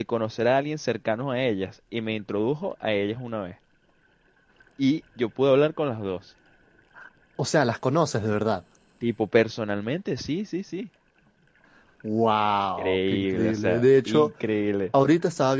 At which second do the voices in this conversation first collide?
12.8 s

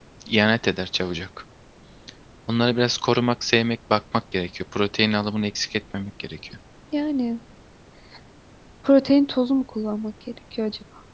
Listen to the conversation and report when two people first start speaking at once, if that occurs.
none

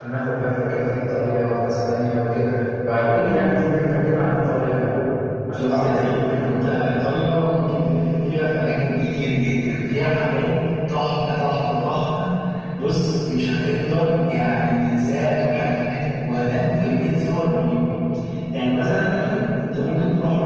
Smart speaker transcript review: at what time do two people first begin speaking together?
5.6 s

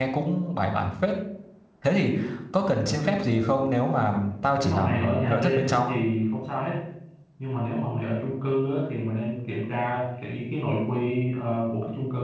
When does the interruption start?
4.6 s

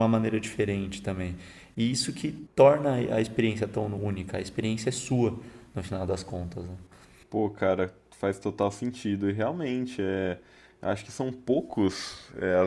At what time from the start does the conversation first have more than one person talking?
none

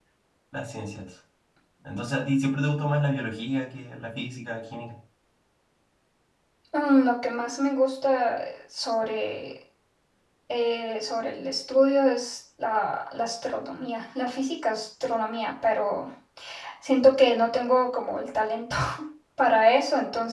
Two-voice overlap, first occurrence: none

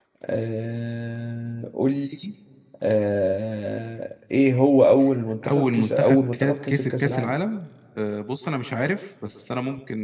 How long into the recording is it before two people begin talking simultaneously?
5.4 s

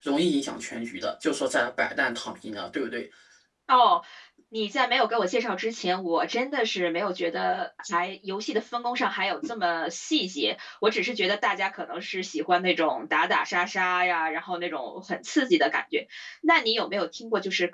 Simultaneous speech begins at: none

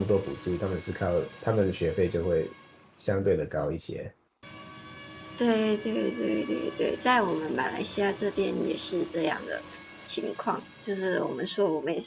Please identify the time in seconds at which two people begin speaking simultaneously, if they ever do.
none

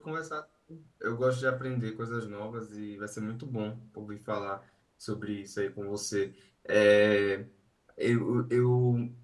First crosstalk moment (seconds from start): none

